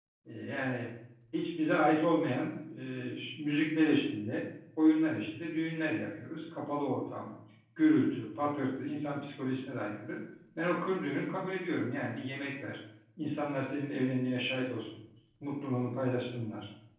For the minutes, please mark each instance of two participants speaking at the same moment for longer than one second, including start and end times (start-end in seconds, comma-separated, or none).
none